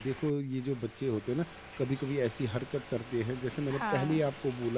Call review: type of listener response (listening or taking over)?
listening